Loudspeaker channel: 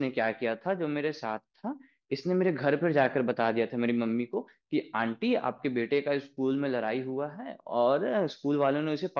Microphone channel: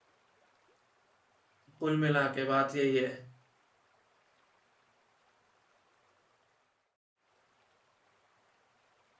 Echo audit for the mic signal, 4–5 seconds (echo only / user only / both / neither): neither